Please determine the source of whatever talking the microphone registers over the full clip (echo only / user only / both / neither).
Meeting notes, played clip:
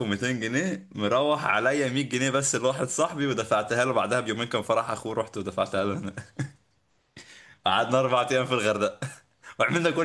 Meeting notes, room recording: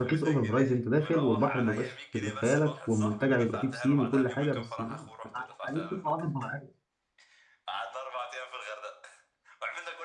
both